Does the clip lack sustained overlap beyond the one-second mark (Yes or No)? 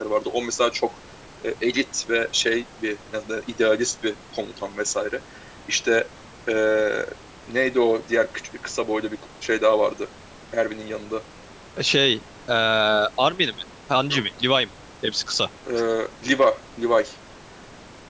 Yes